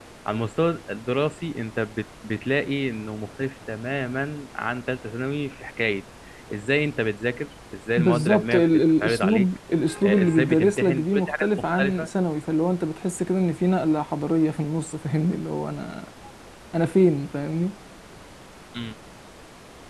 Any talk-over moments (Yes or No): Yes